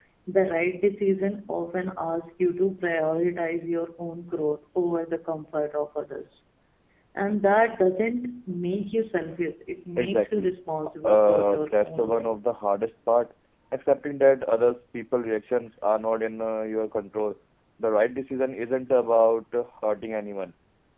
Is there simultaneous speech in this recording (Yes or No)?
Yes